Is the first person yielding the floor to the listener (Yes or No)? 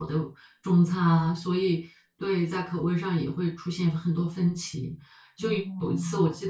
No